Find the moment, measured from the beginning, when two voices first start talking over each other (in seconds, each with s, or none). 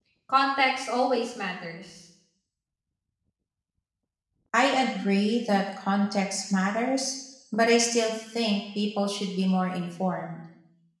none